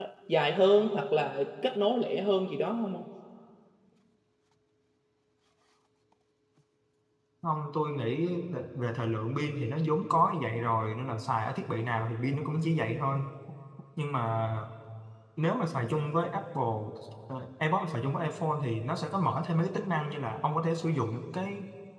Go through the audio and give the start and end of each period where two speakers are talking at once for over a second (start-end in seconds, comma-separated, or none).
none